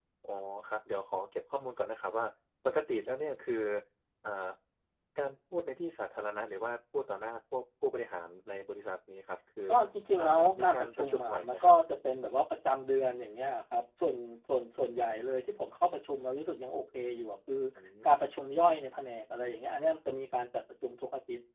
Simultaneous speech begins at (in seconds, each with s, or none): 10.2 s